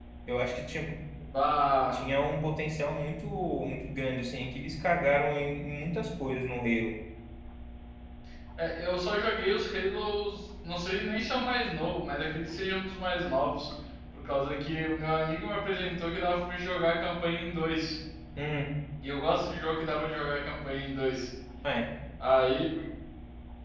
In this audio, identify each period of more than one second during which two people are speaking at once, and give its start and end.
none

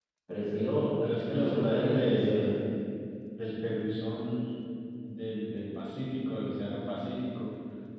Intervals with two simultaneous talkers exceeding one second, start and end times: 1.3-2.5

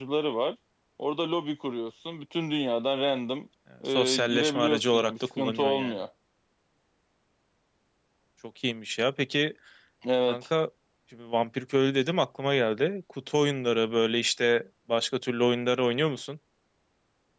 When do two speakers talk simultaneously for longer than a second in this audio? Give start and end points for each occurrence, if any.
3.9-6.0

